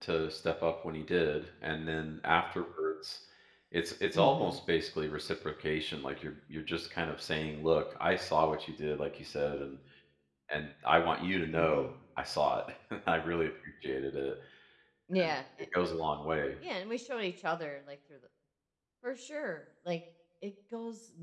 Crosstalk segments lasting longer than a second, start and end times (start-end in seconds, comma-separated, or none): none